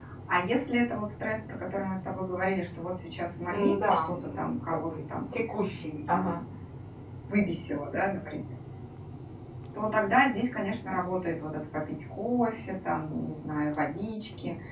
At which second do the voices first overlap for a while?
3.5 s

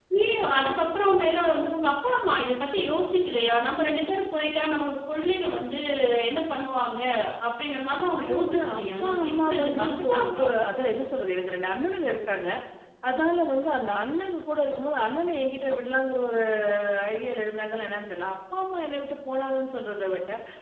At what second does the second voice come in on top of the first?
8.2 s

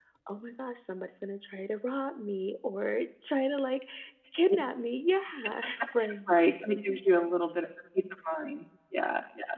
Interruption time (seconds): none

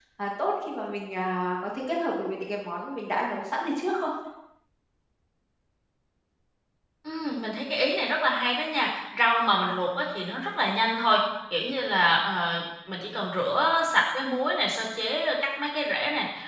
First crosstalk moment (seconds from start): none

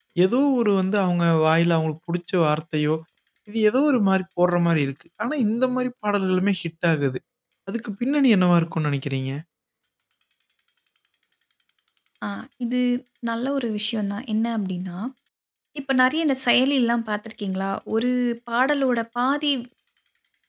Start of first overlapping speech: none

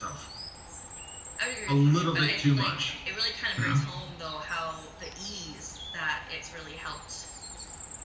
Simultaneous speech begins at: 1.7 s

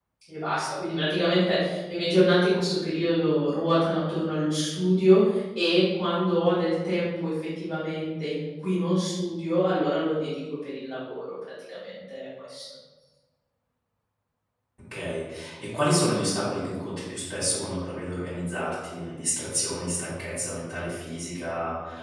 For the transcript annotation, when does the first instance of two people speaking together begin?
none

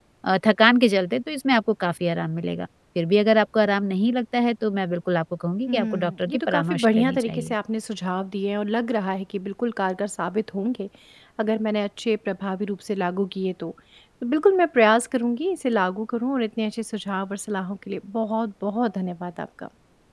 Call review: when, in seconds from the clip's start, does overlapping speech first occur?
5.7 s

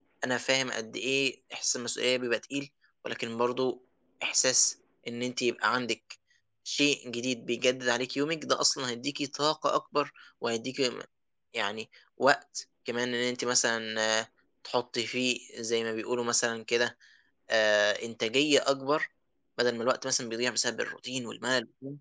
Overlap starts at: none

